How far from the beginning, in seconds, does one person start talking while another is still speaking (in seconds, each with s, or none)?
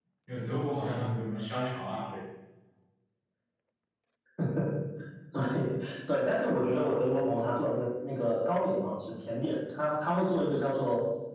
none